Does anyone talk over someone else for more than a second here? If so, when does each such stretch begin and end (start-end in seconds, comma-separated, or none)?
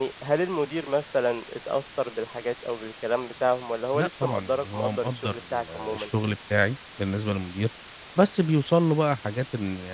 3.9-6.1